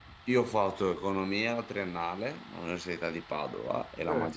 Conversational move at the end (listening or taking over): listening